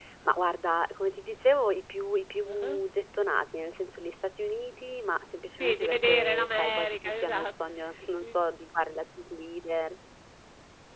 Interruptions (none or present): present